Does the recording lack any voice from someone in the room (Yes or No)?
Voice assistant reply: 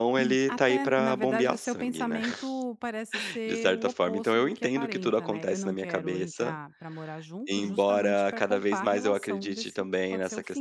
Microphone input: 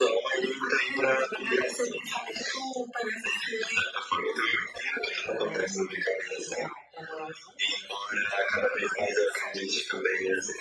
Yes